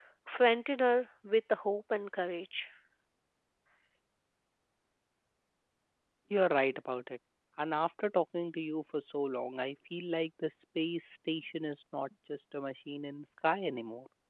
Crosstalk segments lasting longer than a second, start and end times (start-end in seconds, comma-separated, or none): none